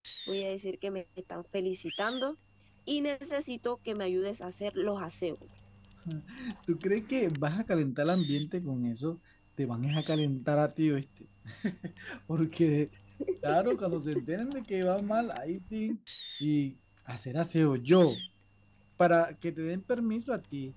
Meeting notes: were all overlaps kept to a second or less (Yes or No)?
Yes